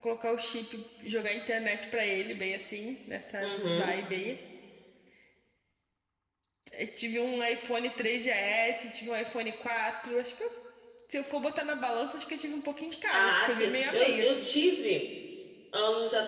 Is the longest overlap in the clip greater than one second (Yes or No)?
Yes